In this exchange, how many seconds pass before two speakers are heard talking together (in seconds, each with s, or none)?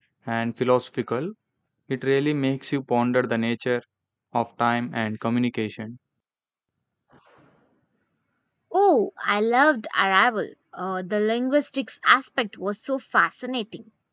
none